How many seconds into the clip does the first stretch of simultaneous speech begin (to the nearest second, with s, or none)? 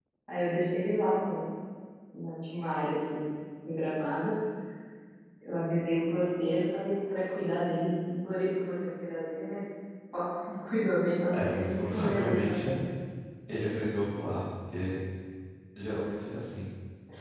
11 s